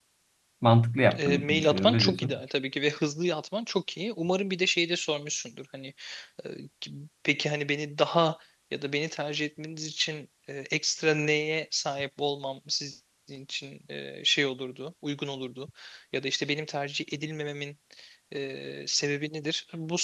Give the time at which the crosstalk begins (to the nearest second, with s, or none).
1 s